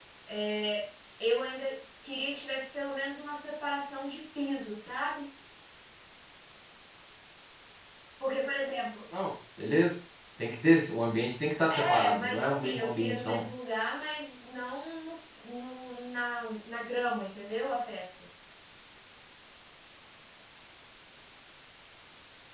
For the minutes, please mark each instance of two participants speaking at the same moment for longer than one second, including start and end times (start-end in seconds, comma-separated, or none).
11.7-13.4